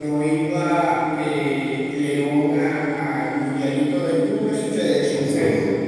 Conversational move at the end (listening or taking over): taking over